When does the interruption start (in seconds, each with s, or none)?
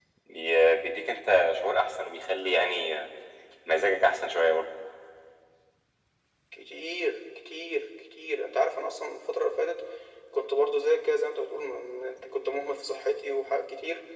none